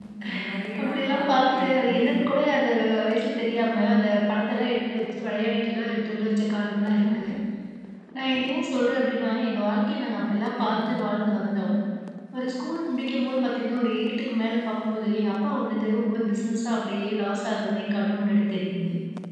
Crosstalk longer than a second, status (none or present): present